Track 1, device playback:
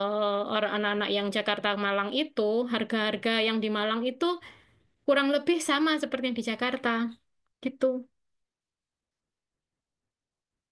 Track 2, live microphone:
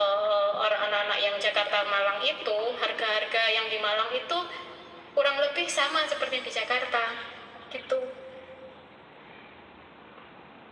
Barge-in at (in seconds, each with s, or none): none